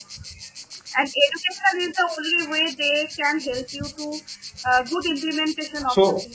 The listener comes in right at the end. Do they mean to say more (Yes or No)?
Yes